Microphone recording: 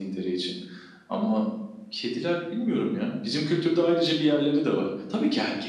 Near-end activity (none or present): none